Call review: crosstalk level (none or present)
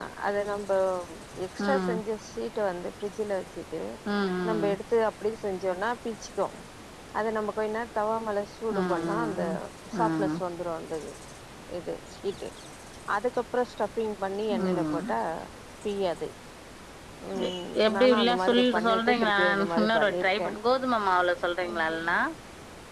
present